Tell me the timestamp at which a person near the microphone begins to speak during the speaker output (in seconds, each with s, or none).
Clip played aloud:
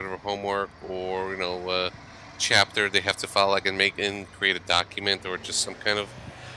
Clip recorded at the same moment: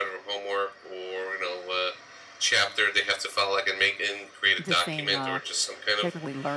4.6 s